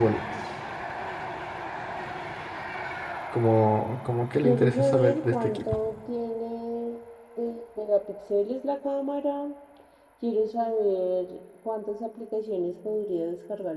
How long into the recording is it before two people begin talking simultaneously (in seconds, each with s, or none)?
4.4 s